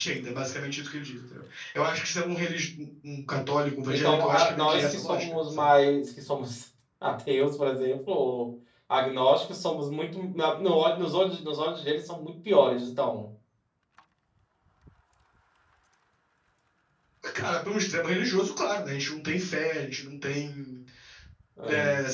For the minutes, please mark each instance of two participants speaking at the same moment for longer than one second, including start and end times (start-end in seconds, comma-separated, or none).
3.9-5.7